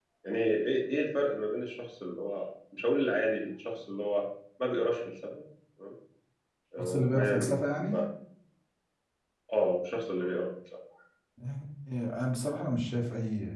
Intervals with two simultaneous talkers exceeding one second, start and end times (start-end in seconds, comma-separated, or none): 6.8-8.0